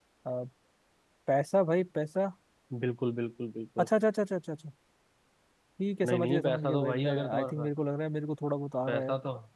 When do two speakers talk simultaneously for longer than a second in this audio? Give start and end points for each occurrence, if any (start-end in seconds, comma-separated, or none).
6.0-7.7